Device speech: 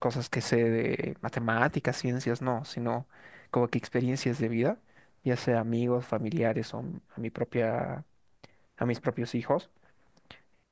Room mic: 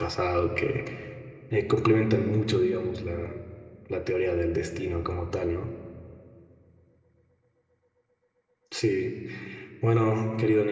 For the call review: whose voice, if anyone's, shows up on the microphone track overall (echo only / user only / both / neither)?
user only